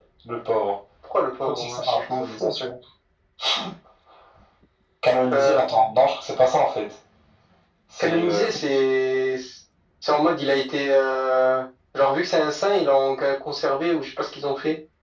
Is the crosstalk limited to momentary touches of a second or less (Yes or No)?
No